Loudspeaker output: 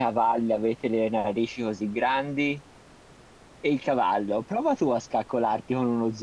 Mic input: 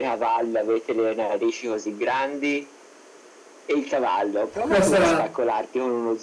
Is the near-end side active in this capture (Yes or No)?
Yes